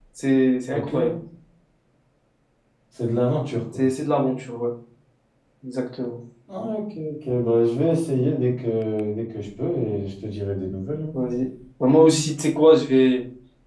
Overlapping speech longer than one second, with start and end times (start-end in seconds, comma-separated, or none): none